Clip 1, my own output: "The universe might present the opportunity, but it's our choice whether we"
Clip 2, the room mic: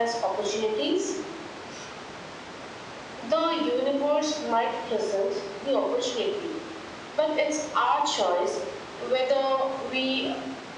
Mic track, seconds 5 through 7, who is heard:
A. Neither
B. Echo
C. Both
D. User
B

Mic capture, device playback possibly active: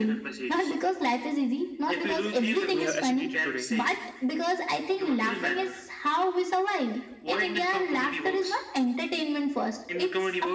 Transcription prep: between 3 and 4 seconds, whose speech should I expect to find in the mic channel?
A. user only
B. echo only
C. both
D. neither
C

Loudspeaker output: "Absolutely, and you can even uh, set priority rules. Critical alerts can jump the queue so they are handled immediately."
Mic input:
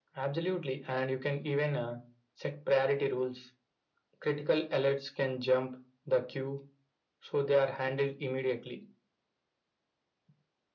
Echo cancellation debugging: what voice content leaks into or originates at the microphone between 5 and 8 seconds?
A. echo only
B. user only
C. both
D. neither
A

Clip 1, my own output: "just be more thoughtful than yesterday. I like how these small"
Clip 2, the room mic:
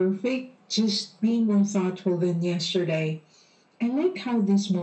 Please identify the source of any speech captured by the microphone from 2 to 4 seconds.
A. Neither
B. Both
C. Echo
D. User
C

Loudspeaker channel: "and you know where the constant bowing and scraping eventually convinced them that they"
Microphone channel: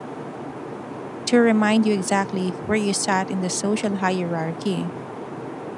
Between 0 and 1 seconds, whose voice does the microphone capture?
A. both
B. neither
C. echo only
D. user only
B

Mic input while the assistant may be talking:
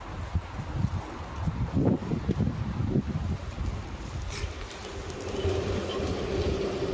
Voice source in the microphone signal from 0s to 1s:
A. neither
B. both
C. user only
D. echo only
A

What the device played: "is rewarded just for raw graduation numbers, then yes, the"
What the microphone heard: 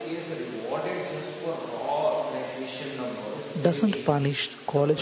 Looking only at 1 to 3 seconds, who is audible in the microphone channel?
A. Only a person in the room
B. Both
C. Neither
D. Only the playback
D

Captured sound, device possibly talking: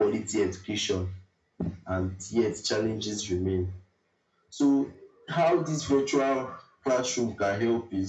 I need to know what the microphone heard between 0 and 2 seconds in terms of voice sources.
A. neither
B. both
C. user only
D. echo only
D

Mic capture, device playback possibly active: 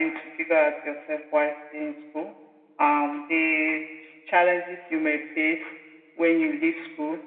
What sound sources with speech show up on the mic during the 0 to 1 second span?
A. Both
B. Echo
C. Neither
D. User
B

